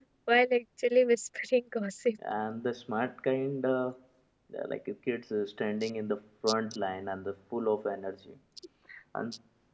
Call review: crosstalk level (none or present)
none